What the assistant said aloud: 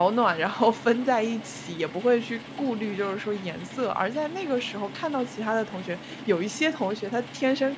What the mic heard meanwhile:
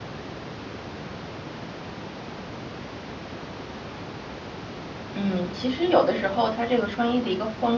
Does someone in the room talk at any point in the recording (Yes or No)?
Yes